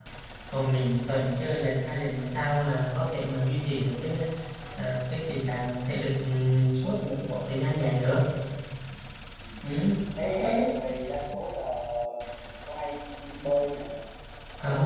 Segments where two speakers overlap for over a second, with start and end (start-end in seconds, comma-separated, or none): none